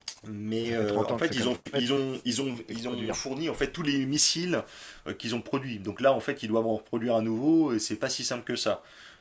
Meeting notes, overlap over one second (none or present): present